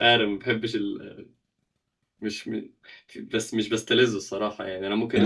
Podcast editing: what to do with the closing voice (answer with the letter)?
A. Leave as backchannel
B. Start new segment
B